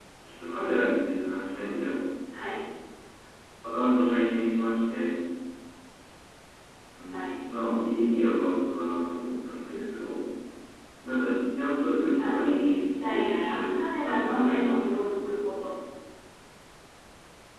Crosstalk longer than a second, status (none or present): present